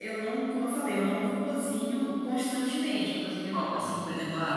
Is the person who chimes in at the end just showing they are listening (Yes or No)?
Yes